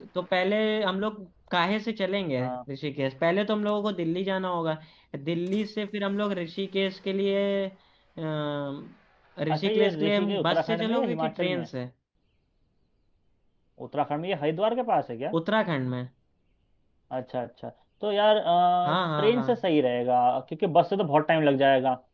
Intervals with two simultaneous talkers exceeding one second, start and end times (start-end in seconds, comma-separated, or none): 9.6-11.7